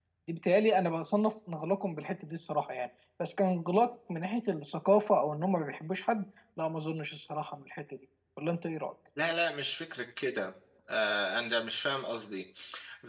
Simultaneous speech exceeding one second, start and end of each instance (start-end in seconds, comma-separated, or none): none